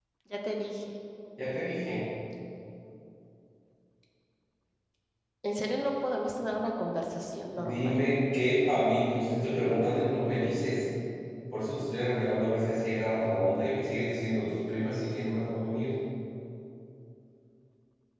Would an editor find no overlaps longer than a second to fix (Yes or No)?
Yes